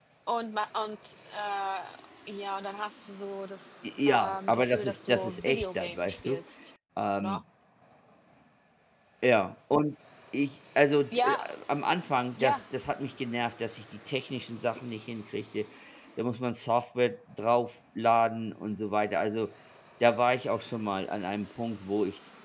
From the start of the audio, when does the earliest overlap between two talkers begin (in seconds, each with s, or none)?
3.8 s